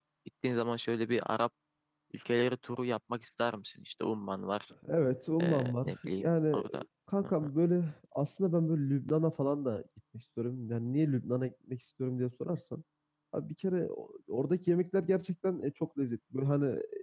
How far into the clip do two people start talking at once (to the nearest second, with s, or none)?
5 s